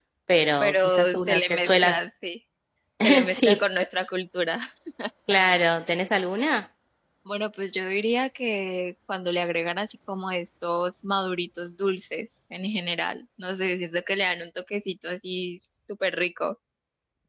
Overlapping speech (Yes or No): Yes